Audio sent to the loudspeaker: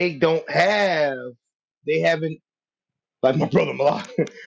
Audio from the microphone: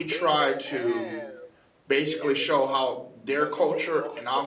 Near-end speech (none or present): present